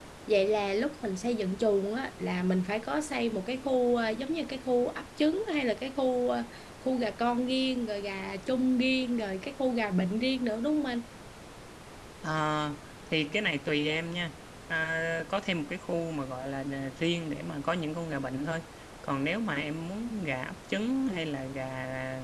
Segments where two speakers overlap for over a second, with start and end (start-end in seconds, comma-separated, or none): none